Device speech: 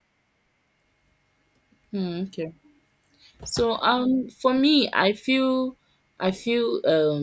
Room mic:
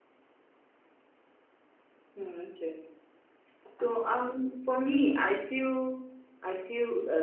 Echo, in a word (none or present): present